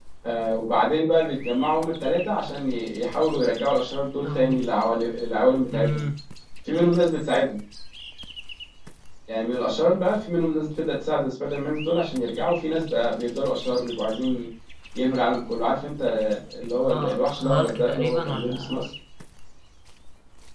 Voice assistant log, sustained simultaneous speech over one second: present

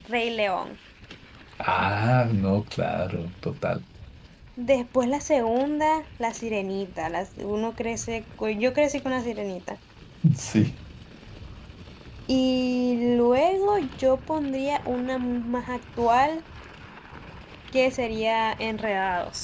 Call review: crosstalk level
none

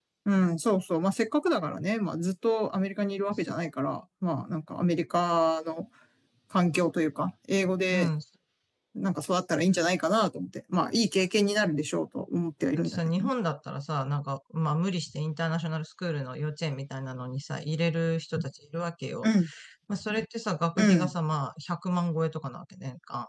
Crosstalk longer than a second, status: none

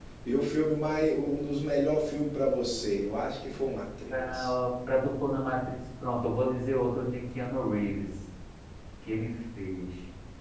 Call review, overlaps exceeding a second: none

